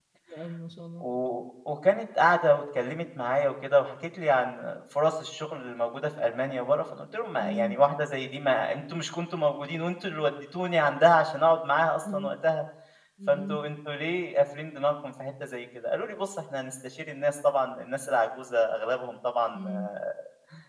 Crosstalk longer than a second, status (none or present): none